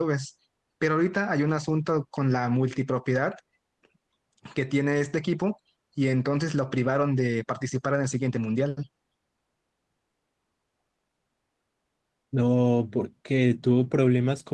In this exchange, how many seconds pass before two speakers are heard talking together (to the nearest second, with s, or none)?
none